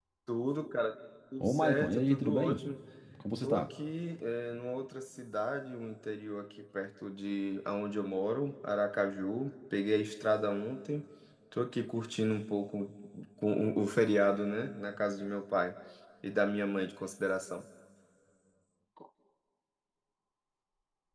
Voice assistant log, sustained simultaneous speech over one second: present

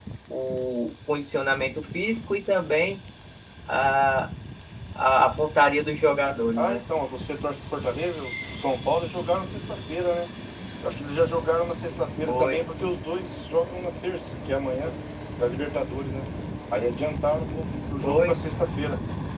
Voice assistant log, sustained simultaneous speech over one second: none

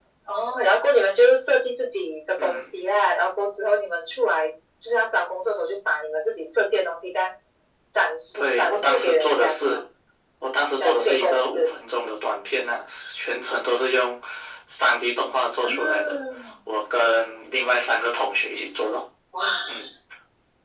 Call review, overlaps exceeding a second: present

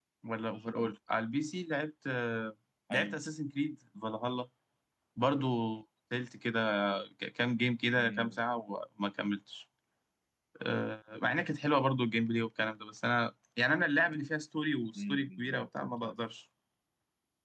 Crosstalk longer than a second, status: present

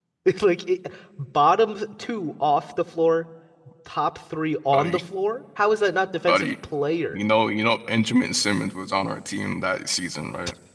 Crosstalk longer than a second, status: none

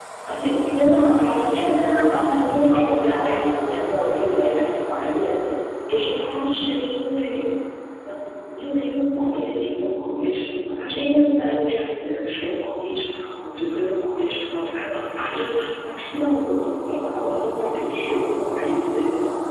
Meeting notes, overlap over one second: present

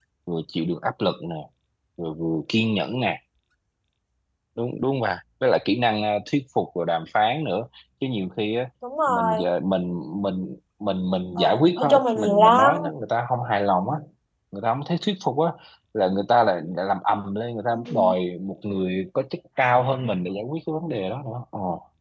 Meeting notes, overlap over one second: present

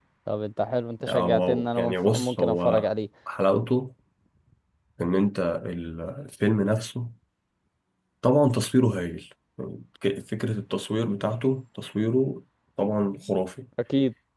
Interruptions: present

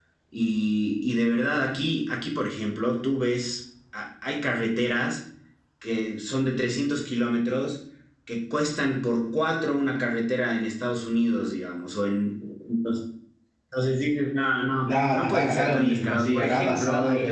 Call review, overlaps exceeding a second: present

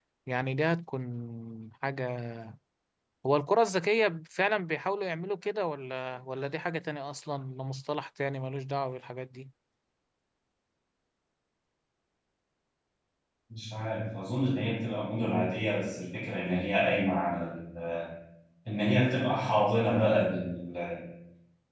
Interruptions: none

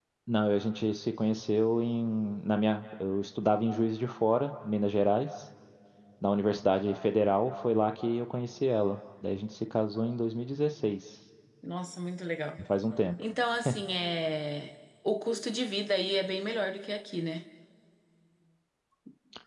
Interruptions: none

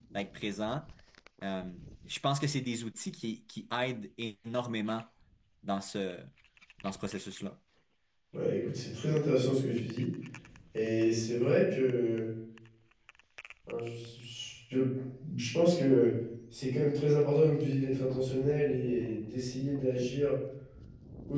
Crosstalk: none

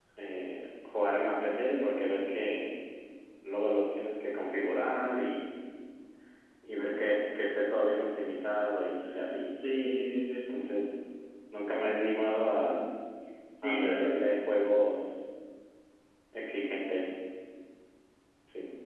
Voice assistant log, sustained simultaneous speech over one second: none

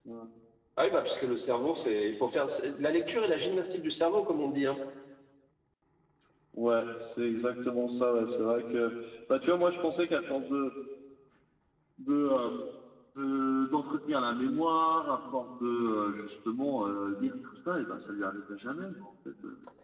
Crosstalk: none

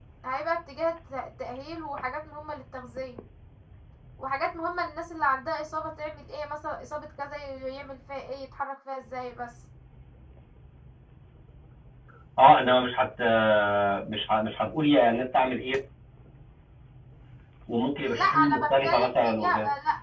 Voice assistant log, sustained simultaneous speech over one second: present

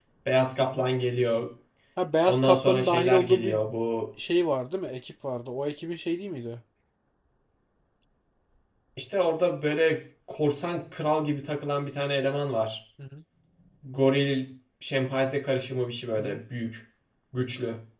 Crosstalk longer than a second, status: present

